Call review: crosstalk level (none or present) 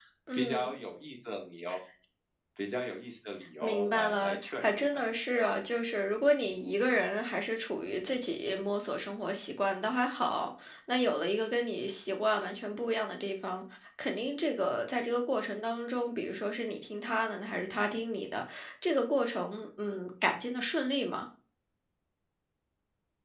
present